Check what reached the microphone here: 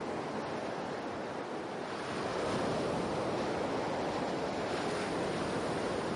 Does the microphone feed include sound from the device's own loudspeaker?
No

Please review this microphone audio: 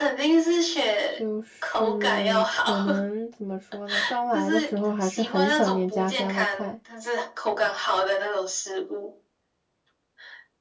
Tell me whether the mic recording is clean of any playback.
No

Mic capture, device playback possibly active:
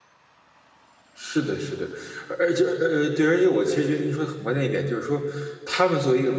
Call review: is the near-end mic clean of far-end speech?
Yes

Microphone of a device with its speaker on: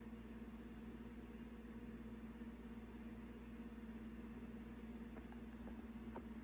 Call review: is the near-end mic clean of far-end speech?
Yes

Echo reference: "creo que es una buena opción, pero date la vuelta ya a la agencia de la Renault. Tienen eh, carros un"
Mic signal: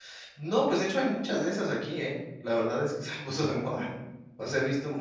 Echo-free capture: Yes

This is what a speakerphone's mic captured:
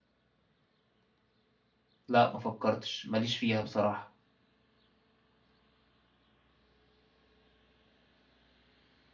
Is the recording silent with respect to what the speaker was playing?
Yes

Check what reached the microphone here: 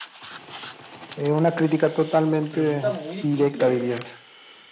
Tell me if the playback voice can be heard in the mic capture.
Yes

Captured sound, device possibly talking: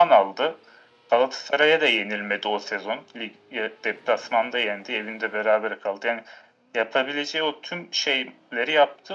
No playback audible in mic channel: No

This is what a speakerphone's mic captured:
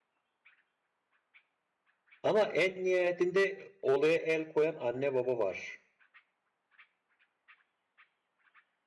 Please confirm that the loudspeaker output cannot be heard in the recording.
Yes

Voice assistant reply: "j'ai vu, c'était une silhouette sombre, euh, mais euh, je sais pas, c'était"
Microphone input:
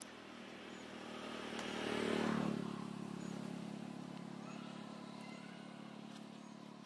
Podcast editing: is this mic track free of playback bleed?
Yes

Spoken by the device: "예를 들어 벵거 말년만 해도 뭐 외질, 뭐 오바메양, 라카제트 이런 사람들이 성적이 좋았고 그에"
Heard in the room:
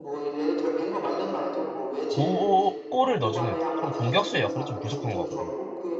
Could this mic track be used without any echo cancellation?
No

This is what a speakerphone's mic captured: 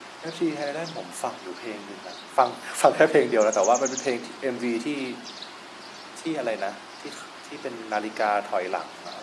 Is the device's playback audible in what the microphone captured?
No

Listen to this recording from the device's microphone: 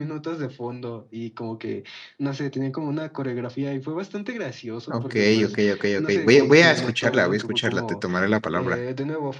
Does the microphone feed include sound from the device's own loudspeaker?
Yes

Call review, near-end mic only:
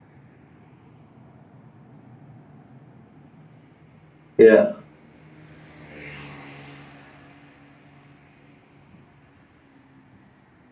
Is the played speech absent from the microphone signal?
Yes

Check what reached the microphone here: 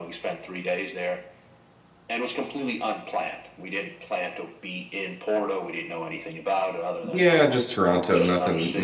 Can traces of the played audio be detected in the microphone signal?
Yes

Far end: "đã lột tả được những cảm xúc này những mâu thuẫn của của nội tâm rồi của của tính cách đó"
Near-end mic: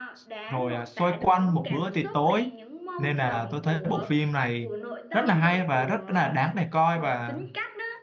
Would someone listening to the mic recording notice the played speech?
Yes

